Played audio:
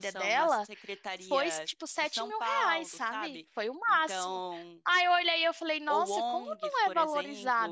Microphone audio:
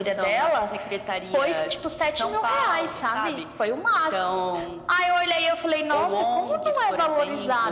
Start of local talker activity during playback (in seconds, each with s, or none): none